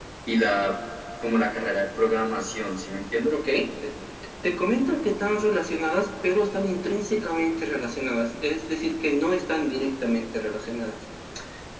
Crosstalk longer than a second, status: none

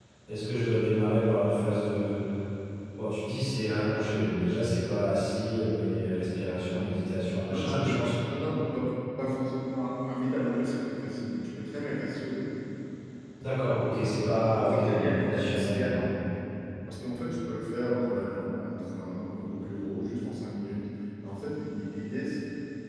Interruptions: present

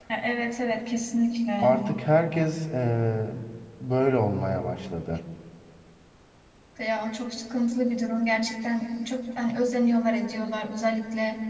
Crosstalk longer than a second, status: none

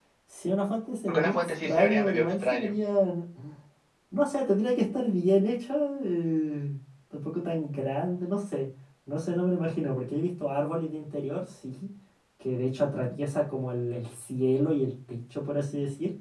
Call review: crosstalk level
present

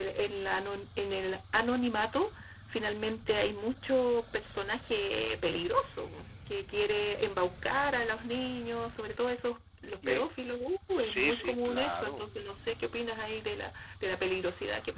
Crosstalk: present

